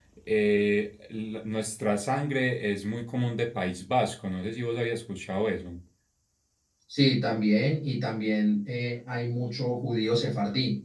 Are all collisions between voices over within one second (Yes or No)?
Yes